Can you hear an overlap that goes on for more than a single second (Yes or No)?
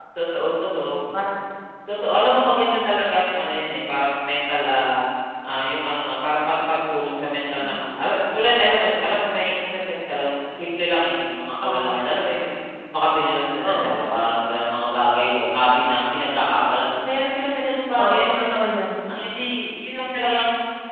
No